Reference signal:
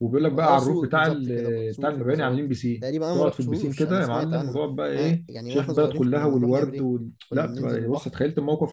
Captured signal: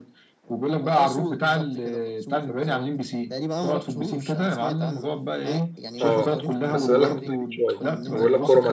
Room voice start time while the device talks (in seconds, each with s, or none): 6.0 s